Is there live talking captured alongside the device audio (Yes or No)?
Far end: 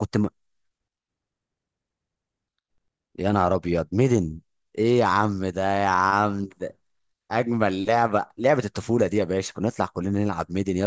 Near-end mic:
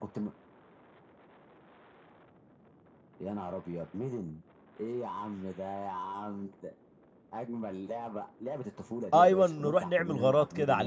Yes